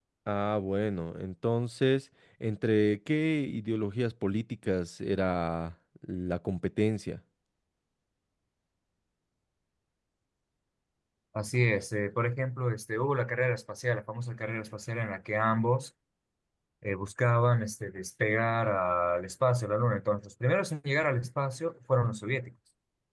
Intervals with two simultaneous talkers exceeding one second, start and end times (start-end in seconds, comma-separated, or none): none